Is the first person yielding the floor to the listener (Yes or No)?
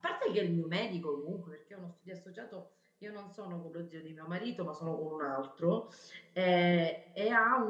No